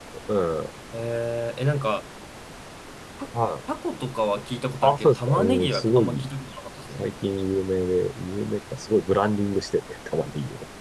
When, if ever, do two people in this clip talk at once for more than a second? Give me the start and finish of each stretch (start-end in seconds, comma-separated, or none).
4.8-6.3